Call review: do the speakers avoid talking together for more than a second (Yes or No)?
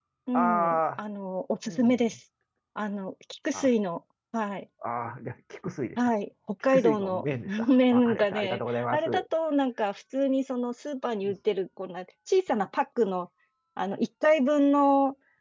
No